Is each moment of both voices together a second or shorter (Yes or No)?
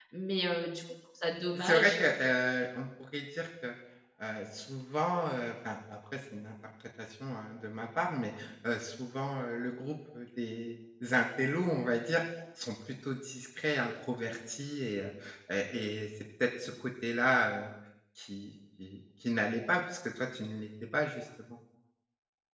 Yes